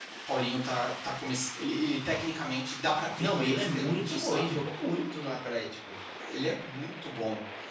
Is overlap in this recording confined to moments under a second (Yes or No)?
No